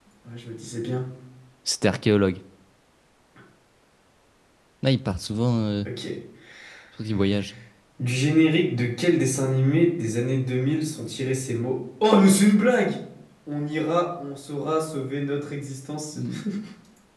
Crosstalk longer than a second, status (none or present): none